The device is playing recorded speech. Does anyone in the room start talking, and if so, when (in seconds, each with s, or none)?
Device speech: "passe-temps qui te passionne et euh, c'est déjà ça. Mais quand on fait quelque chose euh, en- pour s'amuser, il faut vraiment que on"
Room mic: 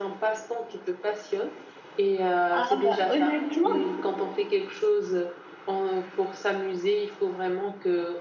2.5 s